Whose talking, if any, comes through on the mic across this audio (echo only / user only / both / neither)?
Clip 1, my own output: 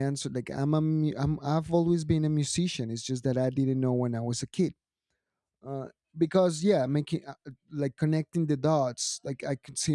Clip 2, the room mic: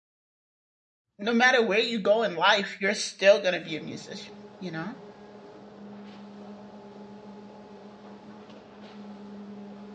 user only